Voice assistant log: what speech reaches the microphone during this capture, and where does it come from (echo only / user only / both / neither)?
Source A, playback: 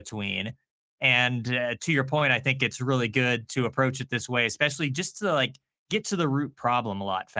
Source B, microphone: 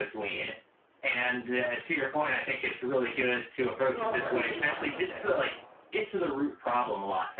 both